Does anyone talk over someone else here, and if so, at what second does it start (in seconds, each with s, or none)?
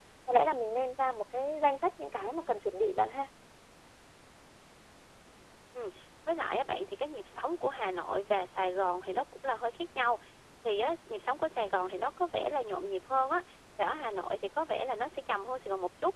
none